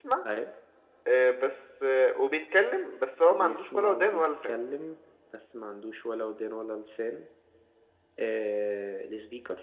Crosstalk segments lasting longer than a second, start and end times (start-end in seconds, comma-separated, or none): 3.3-4.5